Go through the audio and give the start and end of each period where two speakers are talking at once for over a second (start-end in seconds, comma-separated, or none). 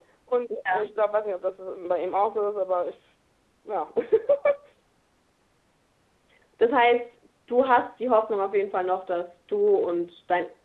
none